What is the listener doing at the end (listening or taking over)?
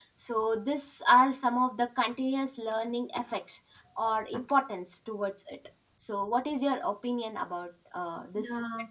taking over